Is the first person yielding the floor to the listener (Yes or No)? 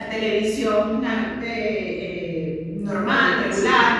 No